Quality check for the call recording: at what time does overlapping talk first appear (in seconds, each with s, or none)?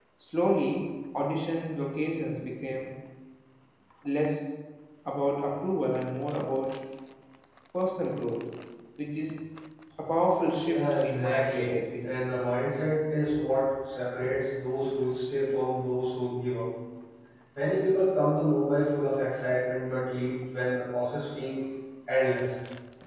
10.6 s